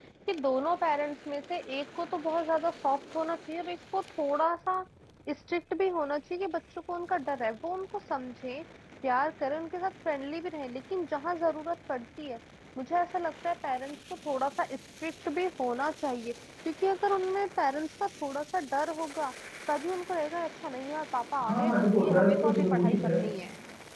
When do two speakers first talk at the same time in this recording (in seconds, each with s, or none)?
21.4 s